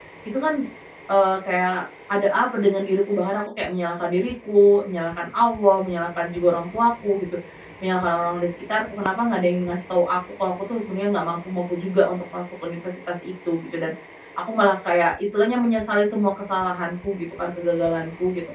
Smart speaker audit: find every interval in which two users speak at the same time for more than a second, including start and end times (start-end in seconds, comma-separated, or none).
none